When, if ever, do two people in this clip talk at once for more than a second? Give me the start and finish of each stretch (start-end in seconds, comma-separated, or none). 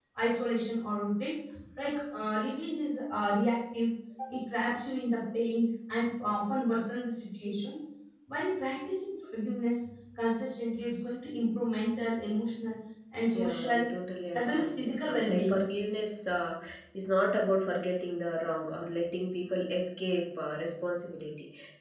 14.3-15.6